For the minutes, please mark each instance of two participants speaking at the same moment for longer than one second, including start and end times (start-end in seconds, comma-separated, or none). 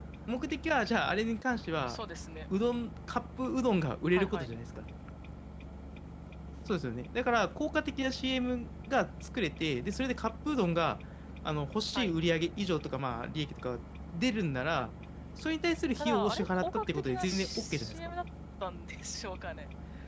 16.0-18.0